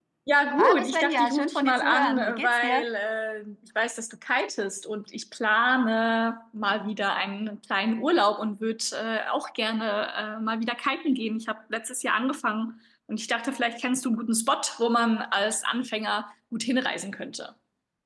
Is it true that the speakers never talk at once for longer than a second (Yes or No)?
No